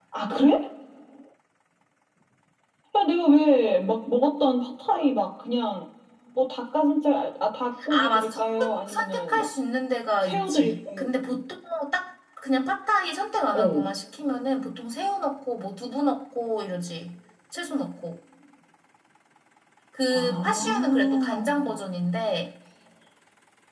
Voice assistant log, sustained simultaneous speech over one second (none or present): present